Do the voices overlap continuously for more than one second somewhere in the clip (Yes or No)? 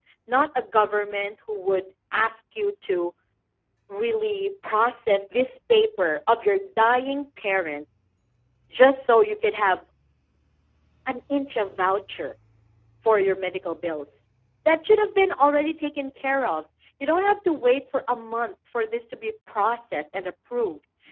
No